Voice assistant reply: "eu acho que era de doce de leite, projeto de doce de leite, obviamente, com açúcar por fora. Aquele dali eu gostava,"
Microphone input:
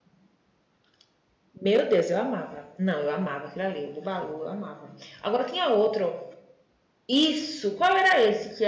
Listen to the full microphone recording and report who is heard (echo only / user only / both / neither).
user only